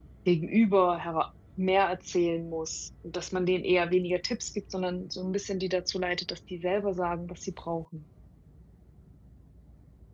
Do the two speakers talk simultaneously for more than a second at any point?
No

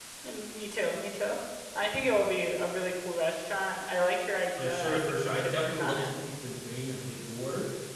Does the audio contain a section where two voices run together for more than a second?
Yes, from 4.5 s

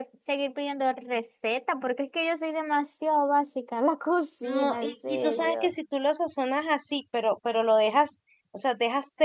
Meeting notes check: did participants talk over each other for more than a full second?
Yes, from 4.5 s

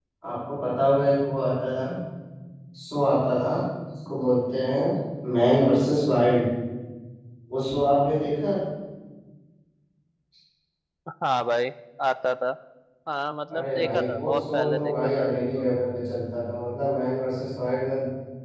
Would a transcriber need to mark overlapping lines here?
Yes, from 13.5 s

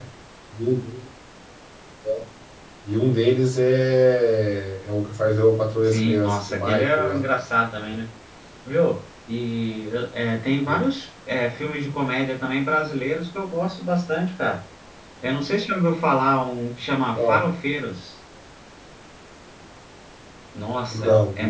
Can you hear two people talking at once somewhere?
Yes, from 5.8 s

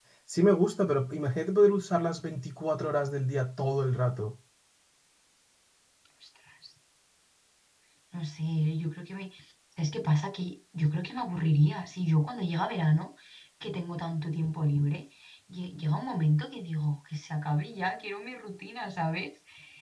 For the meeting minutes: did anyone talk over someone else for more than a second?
No

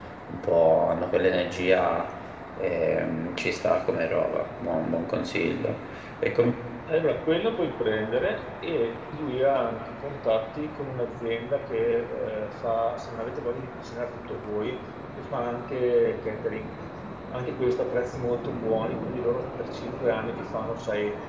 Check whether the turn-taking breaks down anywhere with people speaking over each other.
No

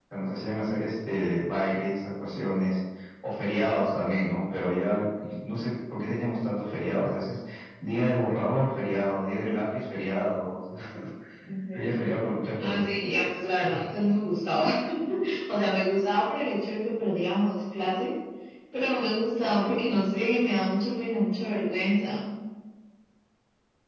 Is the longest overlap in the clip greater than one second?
No

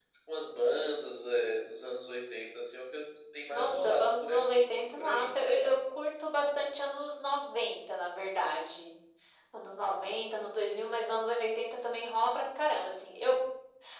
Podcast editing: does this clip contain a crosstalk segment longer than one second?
Yes, from 3.5 s

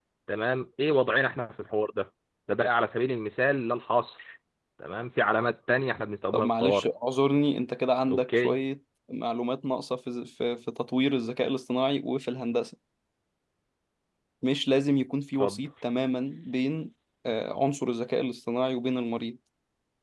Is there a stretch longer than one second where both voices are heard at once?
No

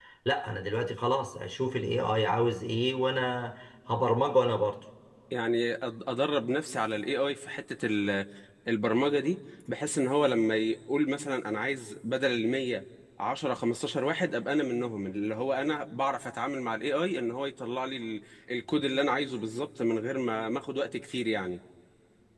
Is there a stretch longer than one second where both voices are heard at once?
No

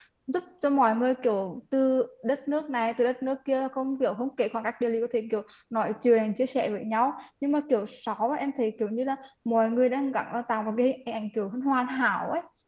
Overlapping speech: No

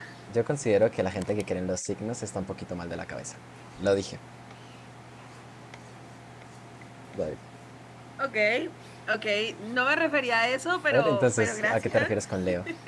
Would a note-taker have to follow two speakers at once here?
Yes, from 10.9 s

